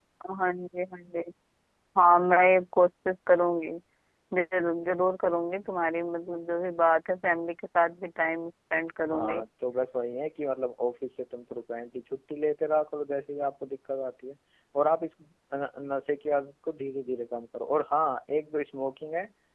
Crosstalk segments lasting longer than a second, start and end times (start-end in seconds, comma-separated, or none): none